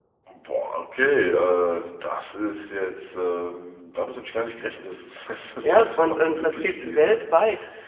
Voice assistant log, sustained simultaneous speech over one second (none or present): present